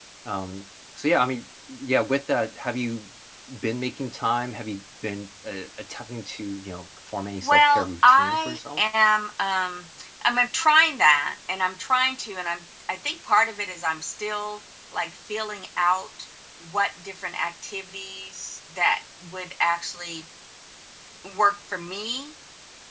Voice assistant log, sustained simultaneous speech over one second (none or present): present